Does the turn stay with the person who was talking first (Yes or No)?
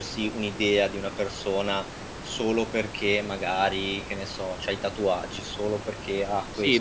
No